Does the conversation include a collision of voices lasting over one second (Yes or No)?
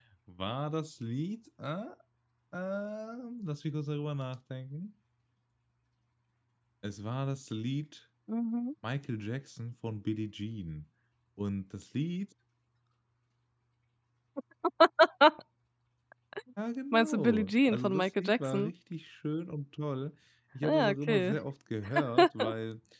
Yes